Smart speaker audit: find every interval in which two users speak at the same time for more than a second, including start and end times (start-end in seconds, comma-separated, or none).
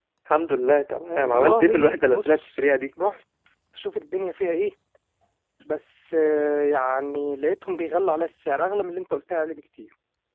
1.1-2.7